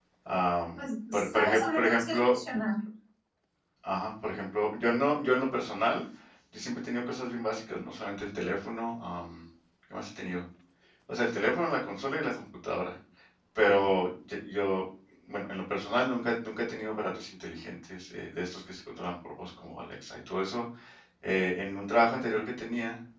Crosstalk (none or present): present